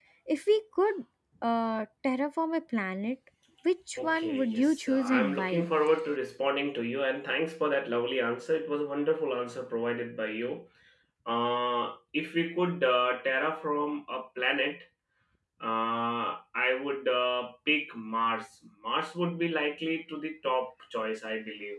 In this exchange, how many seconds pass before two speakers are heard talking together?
4.0 s

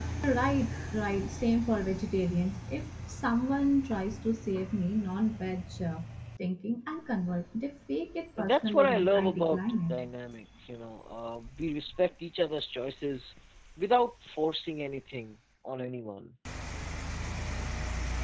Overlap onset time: 8.4 s

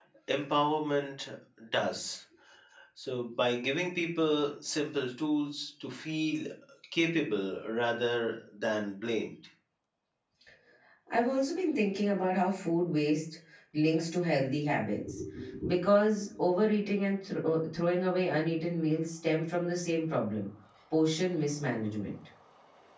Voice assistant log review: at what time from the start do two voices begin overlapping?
none

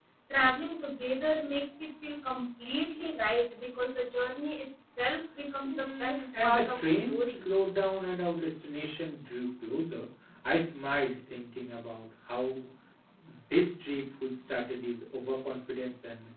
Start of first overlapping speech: 5.6 s

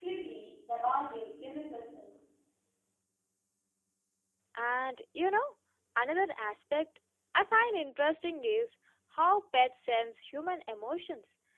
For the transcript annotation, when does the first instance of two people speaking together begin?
none

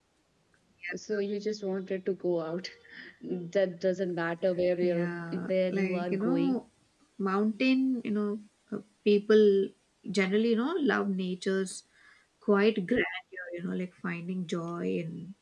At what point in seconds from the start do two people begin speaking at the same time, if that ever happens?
4.8 s

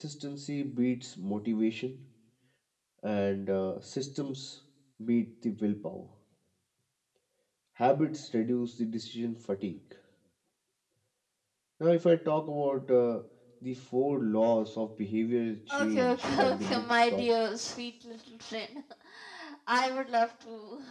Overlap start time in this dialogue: 15.7 s

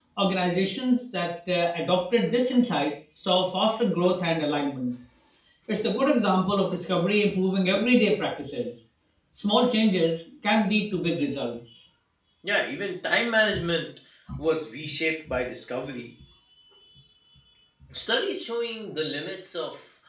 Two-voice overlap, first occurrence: none

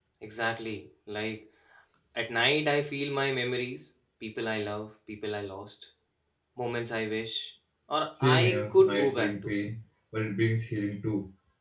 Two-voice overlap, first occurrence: 8.2 s

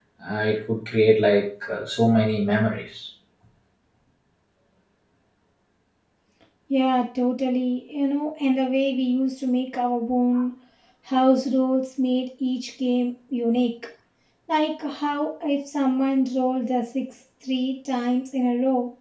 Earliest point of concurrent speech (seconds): none

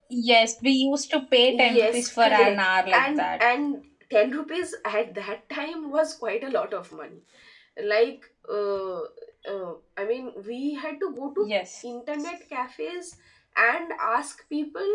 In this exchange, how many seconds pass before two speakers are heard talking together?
1.5 s

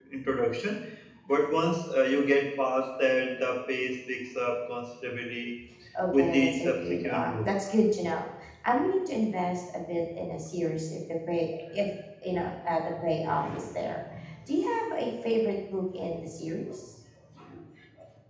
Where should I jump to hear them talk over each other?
6.1 s

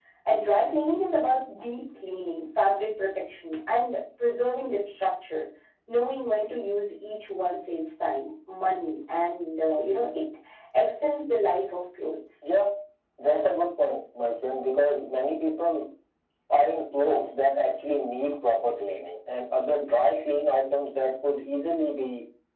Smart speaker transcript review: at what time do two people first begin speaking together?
none

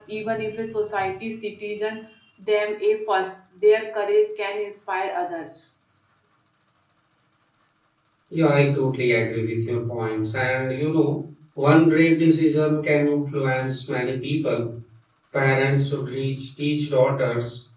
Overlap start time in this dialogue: none

